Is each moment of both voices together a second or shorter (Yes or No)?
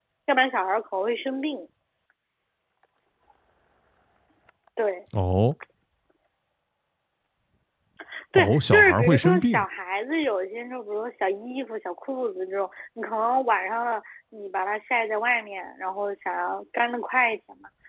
No